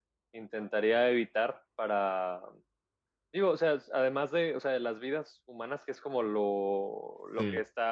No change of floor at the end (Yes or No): Yes